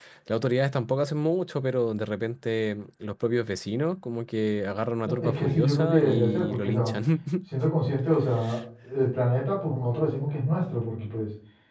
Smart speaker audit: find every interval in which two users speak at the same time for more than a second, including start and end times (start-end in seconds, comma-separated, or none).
5.0-6.9